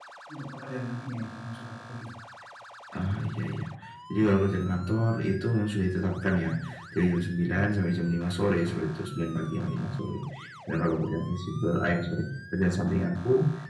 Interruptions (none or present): none